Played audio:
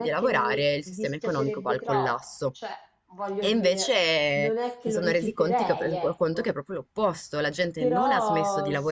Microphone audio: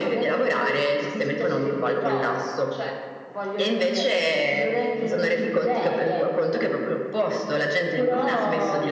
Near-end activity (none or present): none